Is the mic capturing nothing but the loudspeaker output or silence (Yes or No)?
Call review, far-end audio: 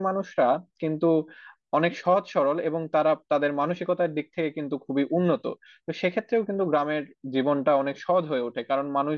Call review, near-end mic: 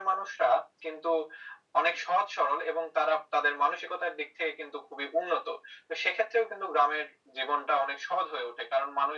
Yes